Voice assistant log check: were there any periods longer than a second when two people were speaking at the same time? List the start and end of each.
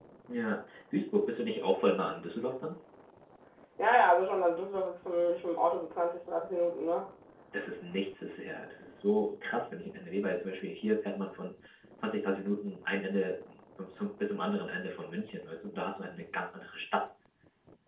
none

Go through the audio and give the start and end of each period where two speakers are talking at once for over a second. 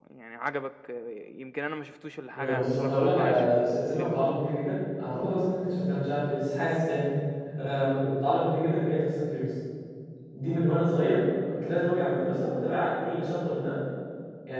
2.4-4.4

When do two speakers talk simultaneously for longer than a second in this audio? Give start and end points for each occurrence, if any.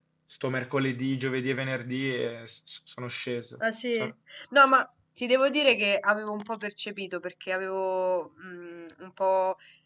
none

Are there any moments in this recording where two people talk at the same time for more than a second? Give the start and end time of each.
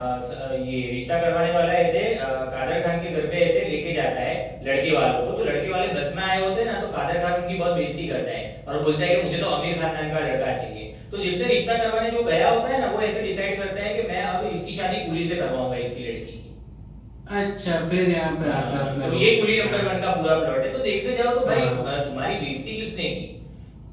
18.4-19.7

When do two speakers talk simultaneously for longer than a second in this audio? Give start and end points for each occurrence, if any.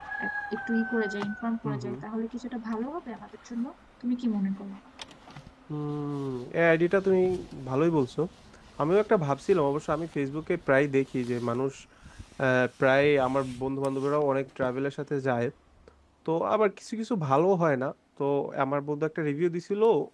none

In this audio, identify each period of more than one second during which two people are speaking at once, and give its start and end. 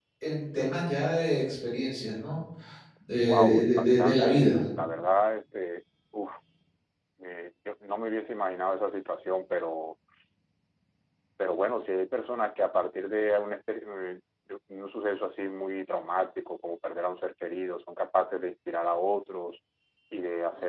3.3-4.5

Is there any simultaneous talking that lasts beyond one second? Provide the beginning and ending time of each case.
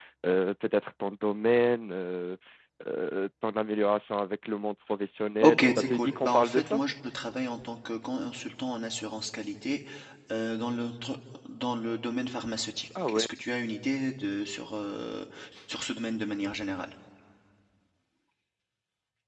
5.4-6.8

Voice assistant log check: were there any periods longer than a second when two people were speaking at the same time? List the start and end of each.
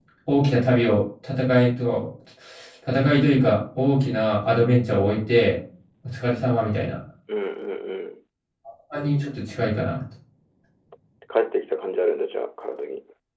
none

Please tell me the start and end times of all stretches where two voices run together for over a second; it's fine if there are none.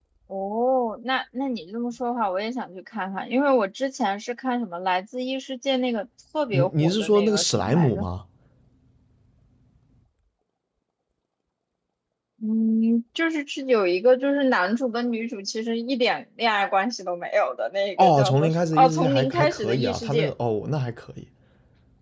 6.5-8.1, 18.0-20.3

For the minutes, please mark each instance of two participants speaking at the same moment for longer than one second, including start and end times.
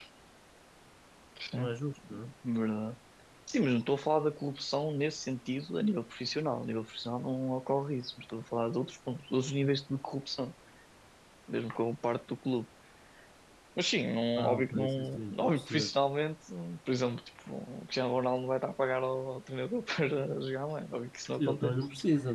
14.4-15.9

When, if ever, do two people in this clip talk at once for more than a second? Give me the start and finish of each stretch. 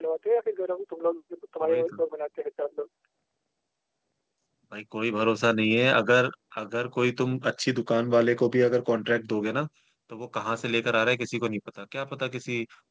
none

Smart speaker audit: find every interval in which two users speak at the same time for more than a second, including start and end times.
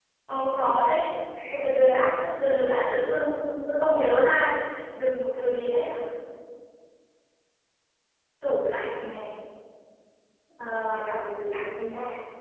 none

